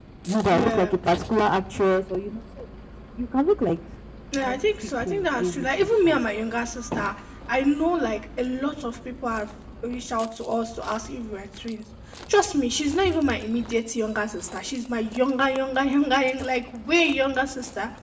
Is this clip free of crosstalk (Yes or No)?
No